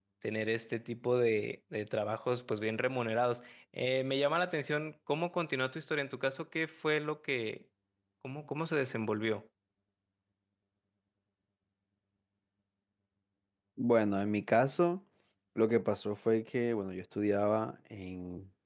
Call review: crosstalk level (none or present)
none